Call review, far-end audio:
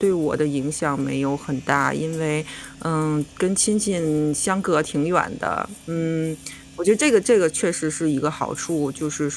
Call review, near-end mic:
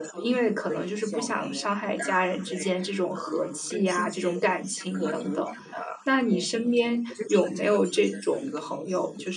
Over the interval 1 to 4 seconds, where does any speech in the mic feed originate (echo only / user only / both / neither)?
both